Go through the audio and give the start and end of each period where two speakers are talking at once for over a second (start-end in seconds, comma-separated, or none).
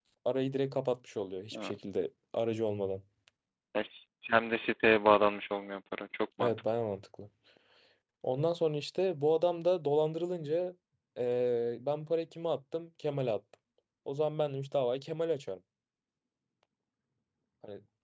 none